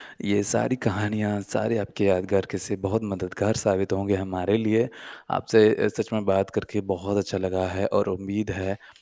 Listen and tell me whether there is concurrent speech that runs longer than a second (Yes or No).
No